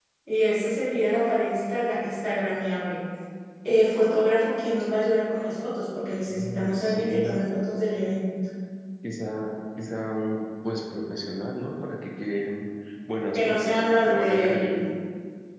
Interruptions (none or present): present